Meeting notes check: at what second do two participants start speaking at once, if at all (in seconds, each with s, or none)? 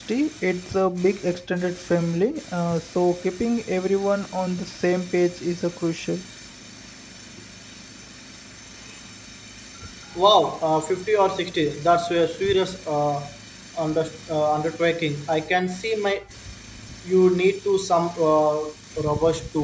none